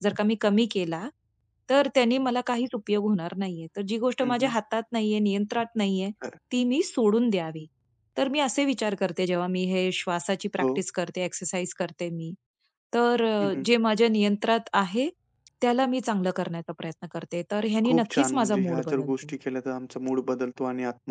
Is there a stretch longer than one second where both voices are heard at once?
Yes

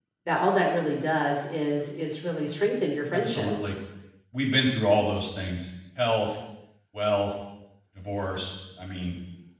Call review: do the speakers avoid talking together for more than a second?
Yes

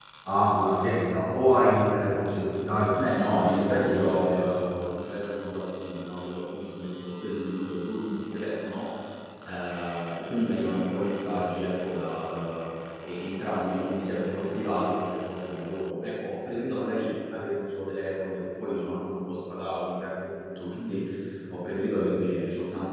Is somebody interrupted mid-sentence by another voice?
Yes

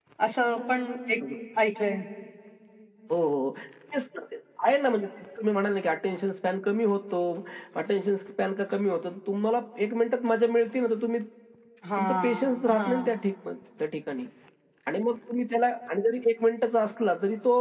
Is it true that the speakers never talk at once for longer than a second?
No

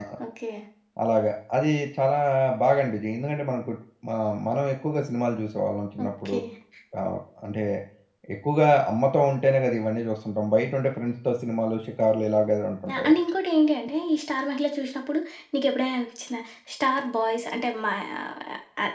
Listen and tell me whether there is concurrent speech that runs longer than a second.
No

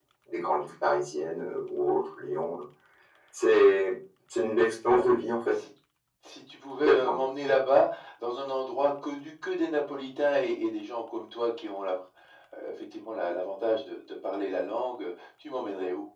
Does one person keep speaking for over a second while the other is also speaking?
No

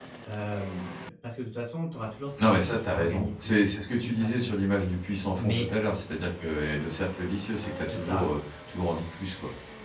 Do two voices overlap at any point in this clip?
Yes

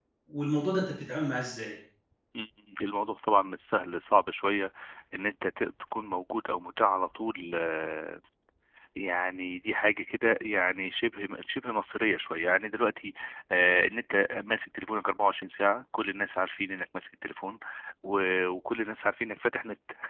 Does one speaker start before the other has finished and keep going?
No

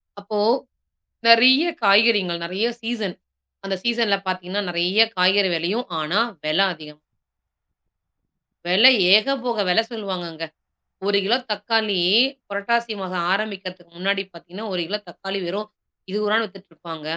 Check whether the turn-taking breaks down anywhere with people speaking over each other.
No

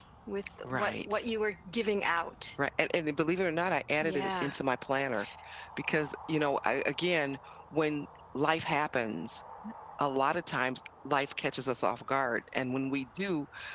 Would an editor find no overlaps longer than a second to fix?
Yes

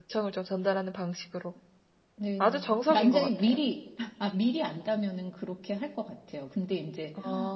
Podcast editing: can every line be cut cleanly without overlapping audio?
No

